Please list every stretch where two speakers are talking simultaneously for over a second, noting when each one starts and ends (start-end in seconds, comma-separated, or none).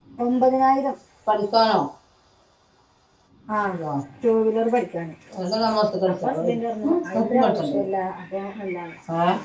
6.1-7.8